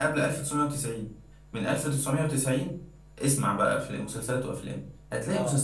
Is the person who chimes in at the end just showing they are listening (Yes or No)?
Yes